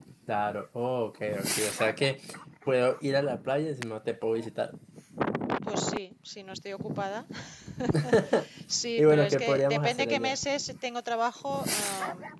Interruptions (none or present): present